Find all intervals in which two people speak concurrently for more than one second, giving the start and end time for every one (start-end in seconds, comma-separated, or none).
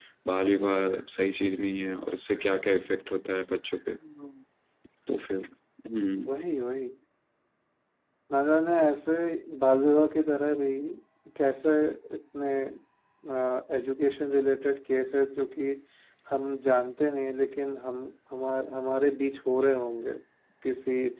none